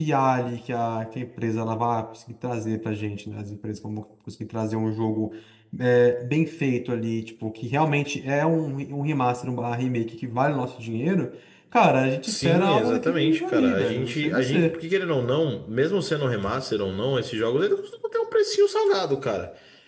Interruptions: present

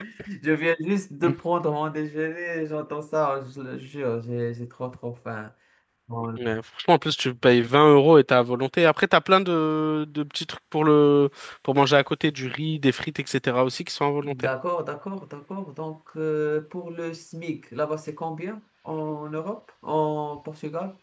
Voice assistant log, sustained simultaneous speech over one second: none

